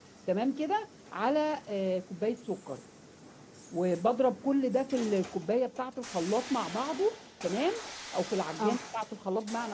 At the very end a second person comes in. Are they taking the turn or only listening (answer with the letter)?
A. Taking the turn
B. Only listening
B